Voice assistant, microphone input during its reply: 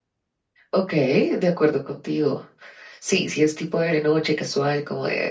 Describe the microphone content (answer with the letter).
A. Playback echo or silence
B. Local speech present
B